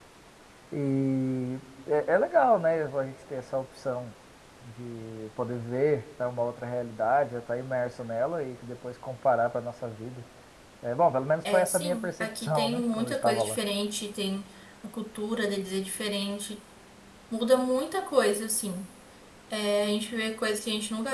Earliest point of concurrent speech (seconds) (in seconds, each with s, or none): 11.5 s